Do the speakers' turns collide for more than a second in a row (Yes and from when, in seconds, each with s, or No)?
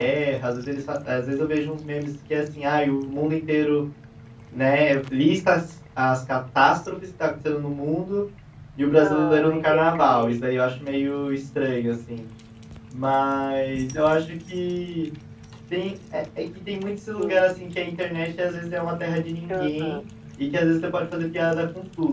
Yes, from 9.0 s